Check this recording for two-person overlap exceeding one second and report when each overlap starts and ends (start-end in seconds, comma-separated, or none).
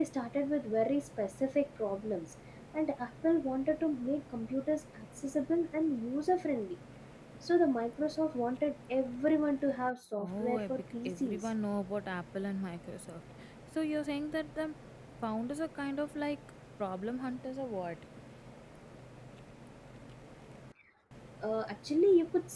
10.2-11.5